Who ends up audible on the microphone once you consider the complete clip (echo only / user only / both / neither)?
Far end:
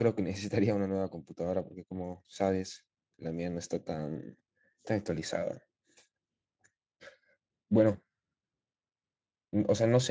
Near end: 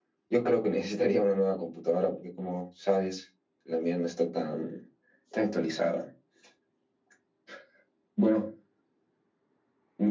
echo only